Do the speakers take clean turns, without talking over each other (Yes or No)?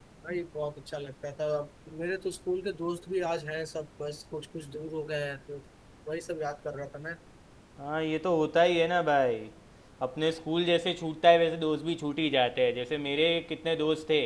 Yes